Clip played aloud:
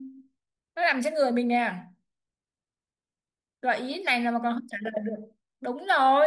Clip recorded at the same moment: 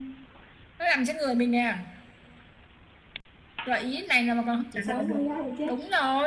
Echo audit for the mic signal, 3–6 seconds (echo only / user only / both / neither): both